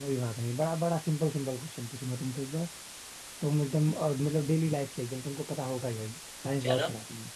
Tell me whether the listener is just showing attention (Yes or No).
Yes